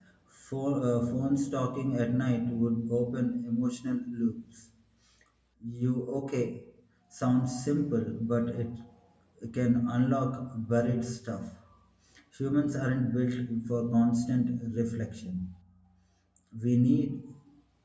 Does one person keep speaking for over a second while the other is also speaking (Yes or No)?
No